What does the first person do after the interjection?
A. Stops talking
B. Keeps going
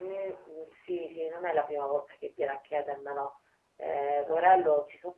B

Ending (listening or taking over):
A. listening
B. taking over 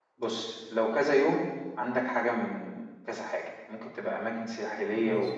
A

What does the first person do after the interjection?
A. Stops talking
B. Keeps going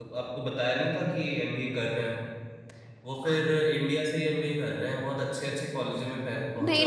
A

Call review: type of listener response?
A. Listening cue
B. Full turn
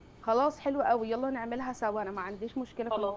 B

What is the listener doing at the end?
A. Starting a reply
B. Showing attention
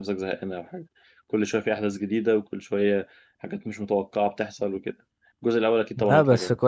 A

